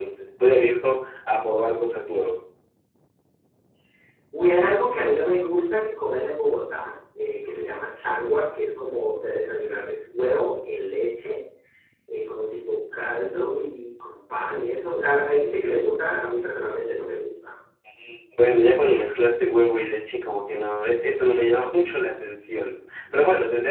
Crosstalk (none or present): none